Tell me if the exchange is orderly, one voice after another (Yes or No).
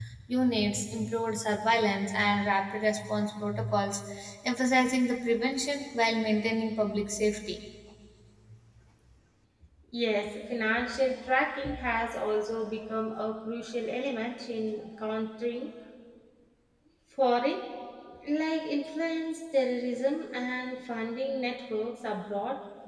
Yes